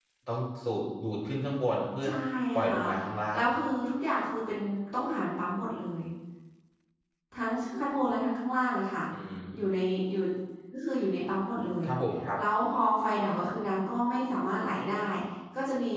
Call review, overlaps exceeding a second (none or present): none